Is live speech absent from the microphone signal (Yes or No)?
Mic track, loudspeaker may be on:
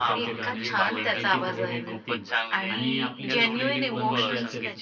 No